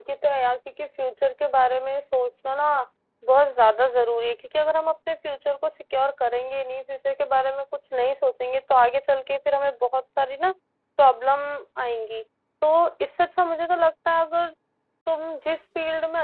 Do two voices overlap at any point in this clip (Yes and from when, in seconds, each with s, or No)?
No